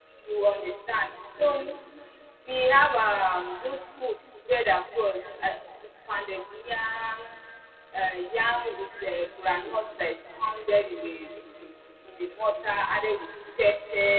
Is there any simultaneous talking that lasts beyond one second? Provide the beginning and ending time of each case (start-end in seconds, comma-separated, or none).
none